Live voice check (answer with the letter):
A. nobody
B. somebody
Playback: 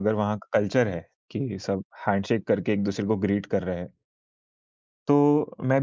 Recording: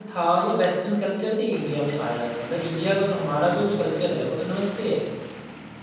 B